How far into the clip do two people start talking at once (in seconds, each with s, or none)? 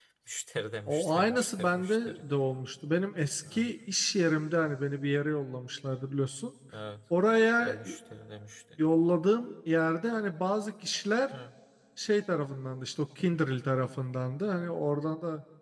0.9 s